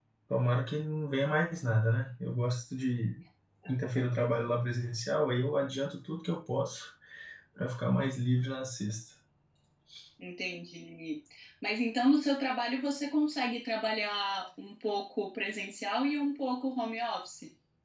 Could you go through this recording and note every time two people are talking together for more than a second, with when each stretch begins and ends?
none

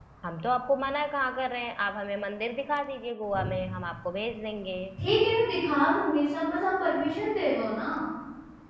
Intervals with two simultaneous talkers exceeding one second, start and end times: none

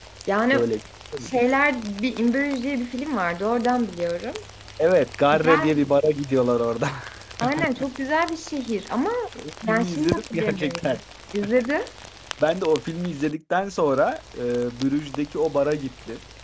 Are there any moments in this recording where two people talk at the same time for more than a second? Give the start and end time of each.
9.6-11.0

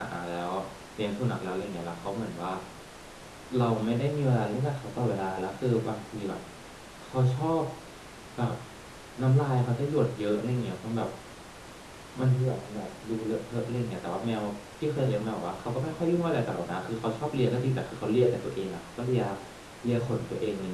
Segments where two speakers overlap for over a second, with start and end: none

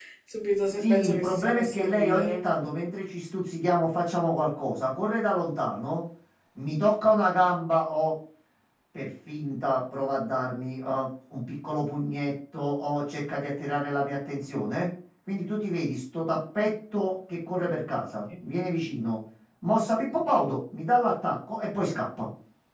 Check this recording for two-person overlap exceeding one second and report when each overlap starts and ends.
0.8-2.5

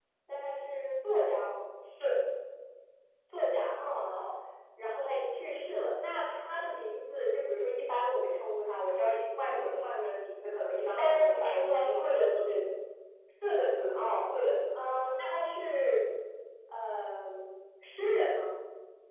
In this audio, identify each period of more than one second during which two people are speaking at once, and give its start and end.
10.9-12.5

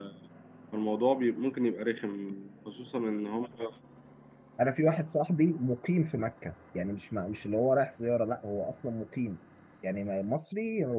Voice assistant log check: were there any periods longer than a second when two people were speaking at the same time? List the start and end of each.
none

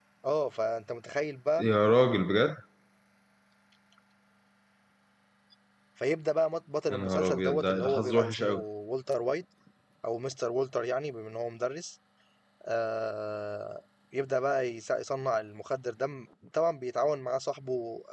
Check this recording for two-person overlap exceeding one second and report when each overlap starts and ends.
6.9-8.6

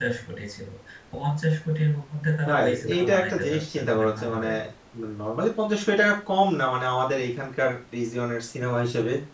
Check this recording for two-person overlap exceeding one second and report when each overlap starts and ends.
2.5-4.5

